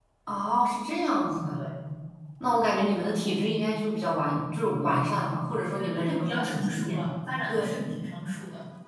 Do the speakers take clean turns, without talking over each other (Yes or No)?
No